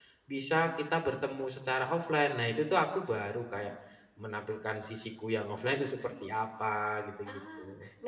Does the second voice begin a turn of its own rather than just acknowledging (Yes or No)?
Yes